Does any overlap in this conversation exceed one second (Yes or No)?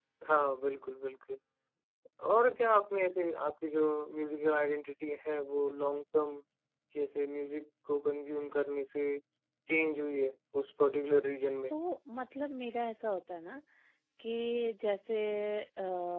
No